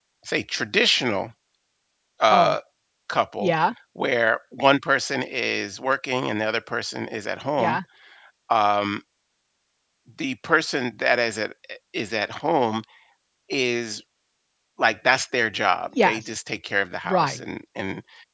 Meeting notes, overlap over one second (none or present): none